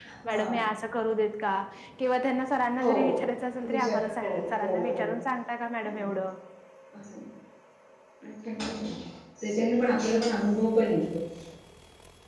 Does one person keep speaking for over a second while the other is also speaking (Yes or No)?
Yes